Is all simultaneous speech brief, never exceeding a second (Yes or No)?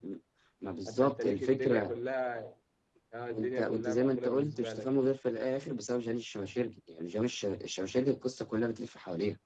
No